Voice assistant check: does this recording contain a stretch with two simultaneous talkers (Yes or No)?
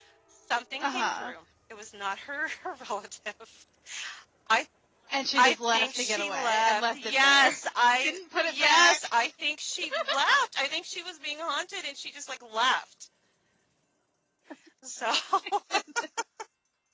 Yes